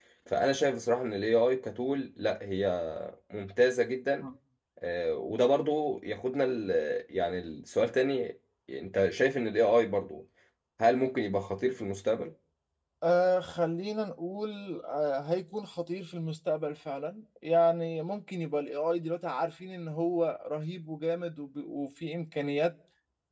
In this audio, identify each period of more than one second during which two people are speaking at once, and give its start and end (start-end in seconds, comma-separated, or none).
none